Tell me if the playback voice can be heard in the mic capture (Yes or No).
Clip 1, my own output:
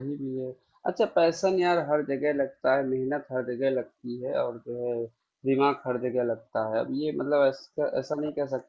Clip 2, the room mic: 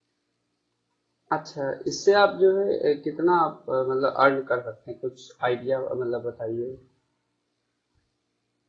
No